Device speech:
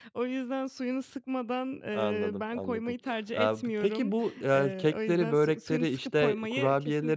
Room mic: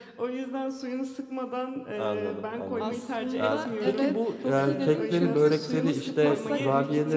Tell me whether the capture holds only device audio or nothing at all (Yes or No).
No